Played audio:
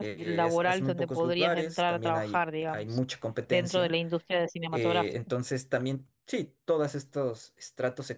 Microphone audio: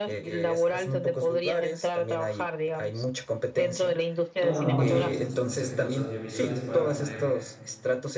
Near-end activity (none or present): present